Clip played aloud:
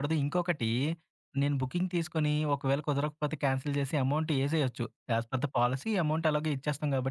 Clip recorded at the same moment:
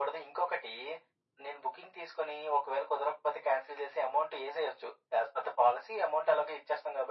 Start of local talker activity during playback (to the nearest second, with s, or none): none